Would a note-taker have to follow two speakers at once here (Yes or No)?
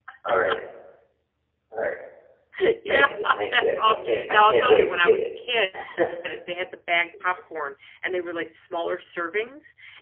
Yes